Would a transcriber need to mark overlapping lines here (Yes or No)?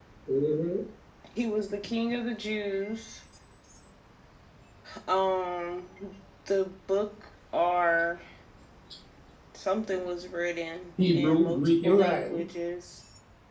Yes